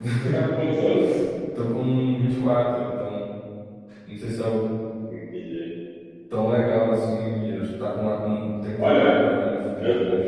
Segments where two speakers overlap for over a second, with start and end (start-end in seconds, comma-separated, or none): none